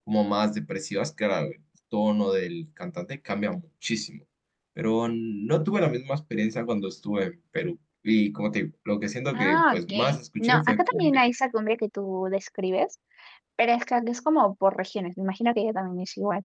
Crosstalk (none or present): present